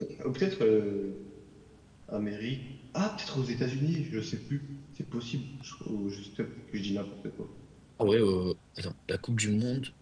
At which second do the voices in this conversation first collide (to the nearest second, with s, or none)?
none